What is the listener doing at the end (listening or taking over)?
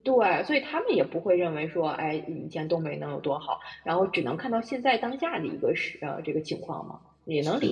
taking over